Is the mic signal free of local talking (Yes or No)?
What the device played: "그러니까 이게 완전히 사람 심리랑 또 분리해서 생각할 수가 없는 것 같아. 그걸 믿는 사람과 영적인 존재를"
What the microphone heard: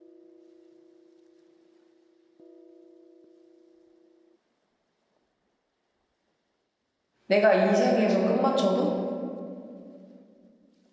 No